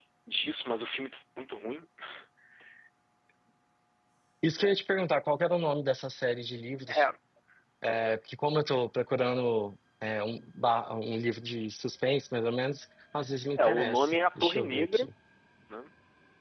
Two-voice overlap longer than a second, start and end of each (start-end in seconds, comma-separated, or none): 13.6-15.1